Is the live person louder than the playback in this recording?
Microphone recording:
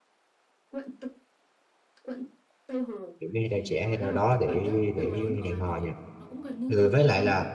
Yes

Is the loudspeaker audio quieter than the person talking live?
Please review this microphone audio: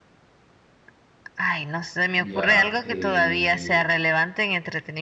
No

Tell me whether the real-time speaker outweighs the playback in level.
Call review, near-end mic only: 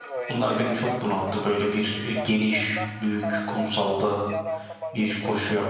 Yes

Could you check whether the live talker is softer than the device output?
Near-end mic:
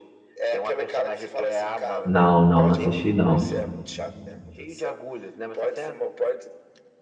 No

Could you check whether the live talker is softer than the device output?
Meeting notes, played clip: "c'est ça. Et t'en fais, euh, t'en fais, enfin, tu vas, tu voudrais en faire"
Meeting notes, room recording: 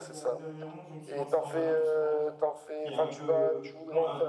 Yes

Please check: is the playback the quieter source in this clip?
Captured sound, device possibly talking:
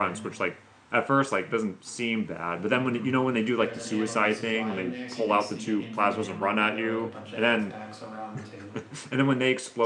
Yes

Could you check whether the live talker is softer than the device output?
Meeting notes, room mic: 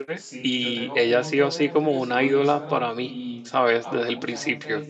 No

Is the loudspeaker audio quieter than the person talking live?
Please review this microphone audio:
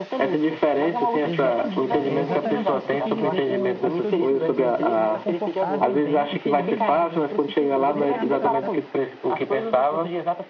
No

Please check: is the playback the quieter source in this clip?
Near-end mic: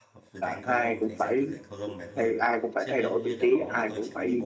No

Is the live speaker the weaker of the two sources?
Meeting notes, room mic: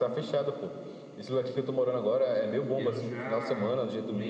Yes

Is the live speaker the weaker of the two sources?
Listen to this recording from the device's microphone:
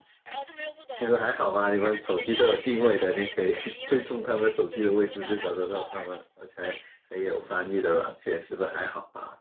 No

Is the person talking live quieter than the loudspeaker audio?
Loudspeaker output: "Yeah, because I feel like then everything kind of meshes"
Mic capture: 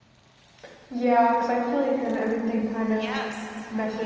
Yes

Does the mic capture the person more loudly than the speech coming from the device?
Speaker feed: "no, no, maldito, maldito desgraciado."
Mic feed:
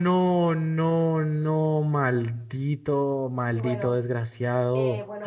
No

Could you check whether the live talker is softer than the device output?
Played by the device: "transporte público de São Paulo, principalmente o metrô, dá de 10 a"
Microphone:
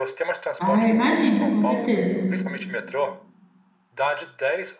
No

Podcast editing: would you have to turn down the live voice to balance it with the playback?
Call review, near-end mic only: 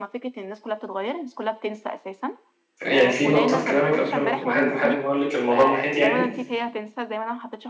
Yes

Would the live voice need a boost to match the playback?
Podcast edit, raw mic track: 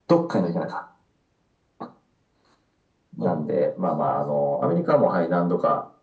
Yes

